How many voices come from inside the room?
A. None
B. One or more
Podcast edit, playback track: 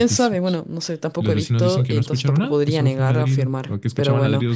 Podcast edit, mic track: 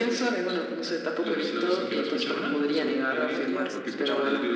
B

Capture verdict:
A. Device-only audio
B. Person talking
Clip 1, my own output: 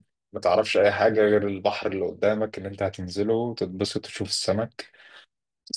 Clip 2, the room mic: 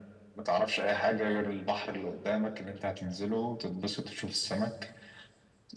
A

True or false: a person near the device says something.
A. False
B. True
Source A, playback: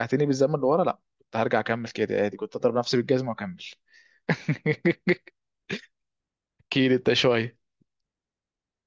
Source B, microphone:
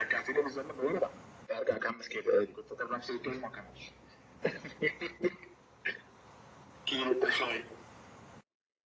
A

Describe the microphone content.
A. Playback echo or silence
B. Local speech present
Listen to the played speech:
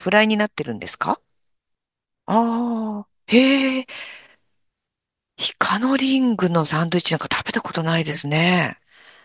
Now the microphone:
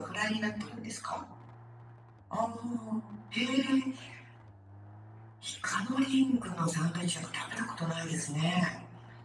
A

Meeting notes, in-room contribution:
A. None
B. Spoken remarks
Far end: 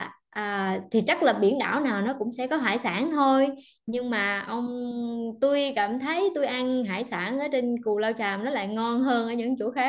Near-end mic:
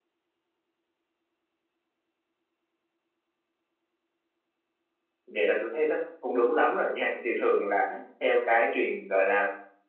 B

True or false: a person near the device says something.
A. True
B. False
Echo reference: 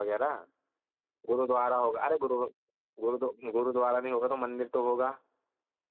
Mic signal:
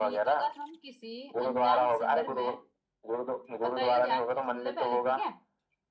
A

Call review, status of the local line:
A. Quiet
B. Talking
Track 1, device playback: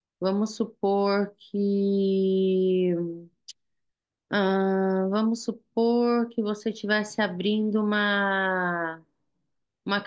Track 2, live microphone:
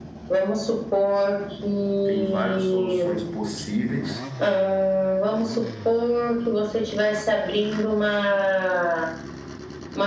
B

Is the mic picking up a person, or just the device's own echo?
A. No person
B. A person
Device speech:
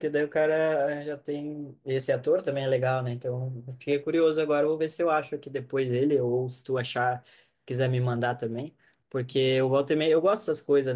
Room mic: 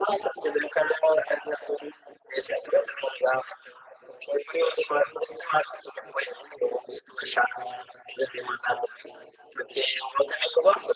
A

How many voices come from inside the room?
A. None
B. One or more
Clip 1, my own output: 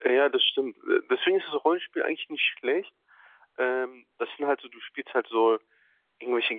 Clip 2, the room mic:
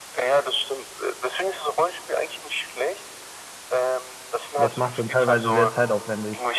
B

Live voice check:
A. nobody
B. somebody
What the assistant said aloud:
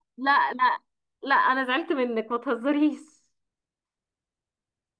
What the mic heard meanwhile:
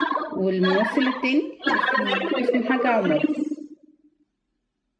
B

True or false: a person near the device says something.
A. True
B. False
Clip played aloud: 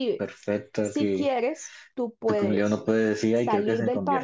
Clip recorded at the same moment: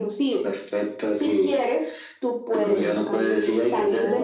A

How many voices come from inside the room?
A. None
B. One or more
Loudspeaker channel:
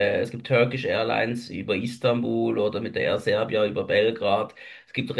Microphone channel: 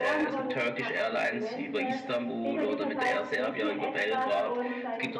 B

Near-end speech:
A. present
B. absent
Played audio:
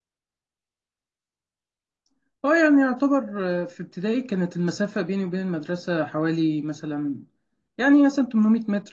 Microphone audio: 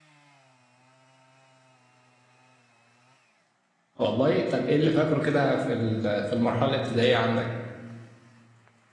A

